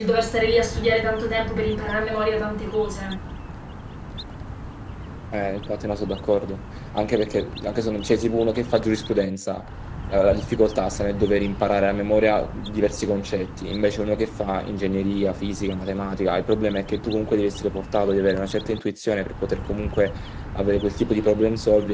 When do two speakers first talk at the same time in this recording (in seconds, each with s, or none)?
none